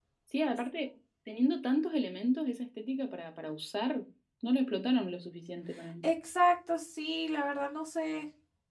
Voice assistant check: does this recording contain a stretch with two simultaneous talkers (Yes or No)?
No